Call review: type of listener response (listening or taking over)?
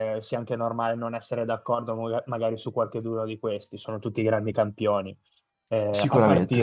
listening